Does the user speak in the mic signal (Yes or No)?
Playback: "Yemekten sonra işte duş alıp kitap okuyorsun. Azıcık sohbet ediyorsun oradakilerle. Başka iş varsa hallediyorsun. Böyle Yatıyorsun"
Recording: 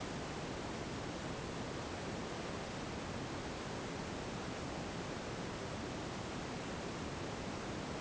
No